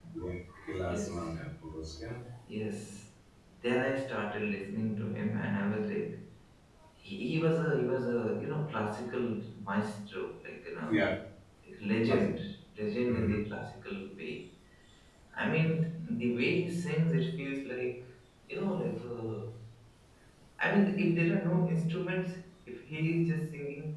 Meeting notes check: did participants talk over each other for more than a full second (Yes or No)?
No